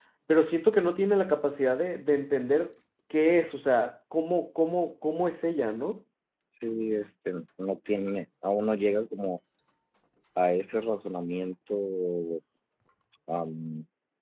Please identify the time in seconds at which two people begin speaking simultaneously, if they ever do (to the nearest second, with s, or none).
none